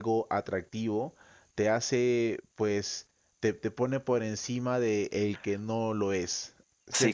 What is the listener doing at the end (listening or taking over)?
taking over